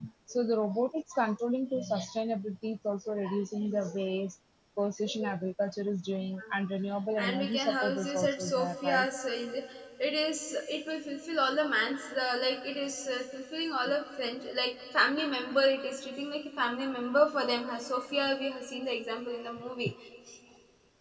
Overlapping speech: Yes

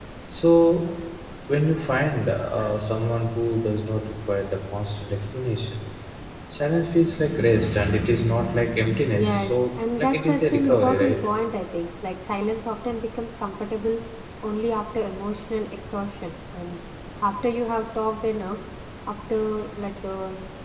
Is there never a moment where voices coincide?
No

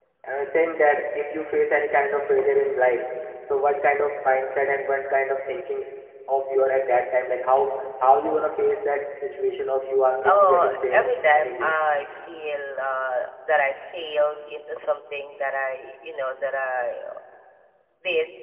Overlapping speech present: Yes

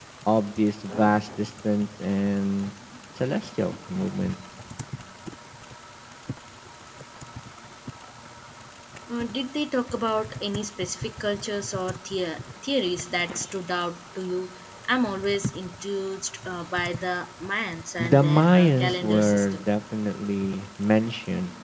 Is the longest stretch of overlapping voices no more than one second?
No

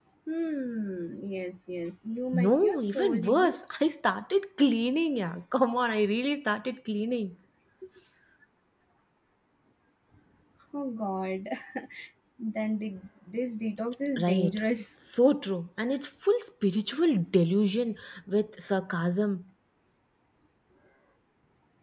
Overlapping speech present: Yes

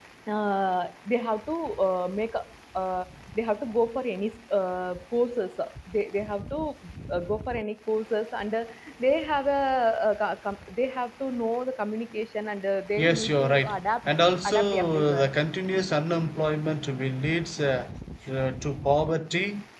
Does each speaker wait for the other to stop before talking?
No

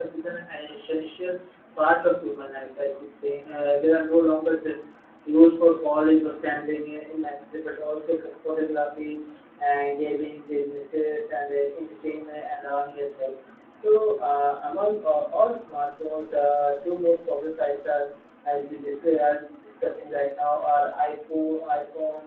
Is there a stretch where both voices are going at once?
No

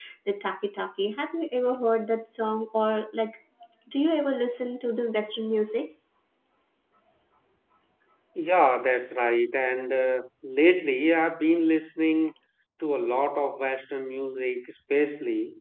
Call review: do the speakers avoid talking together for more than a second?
Yes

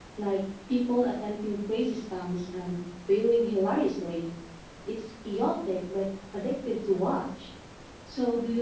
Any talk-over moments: No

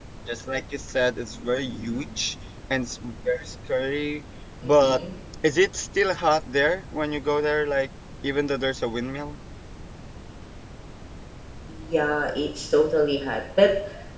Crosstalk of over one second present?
No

